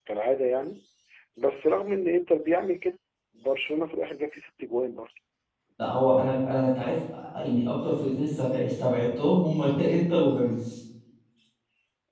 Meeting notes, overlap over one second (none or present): none